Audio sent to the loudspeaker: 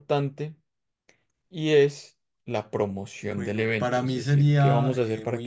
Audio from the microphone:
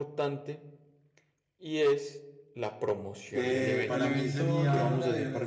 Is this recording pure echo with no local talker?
No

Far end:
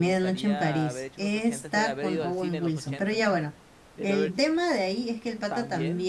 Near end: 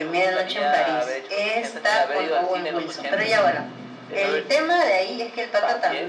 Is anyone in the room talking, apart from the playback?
Yes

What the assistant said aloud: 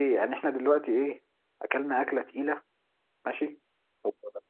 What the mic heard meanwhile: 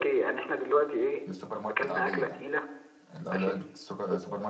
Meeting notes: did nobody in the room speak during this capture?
No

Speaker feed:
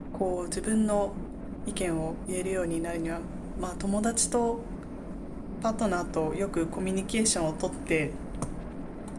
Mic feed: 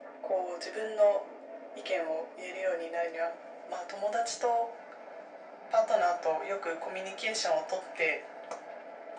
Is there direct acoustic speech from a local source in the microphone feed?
No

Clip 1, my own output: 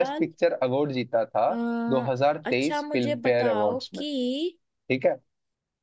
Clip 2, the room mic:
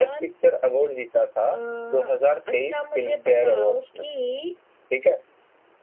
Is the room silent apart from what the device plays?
Yes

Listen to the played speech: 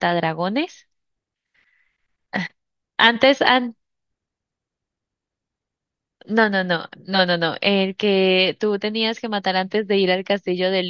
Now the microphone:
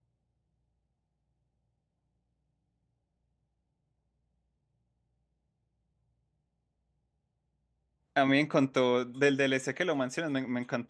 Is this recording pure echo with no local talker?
No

